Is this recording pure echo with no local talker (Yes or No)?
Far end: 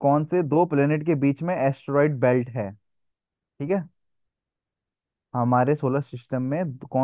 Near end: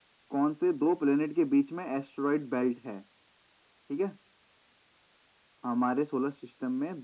Yes